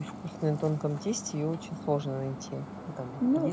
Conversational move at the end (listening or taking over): taking over